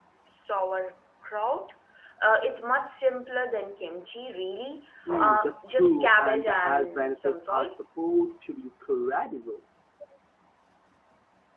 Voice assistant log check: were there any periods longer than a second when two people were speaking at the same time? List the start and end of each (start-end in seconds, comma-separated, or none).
5.1-7.7